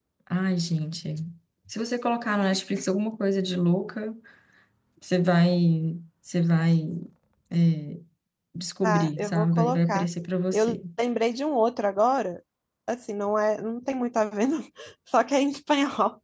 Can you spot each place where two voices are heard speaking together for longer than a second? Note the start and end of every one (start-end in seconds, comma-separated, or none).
8.8-10.1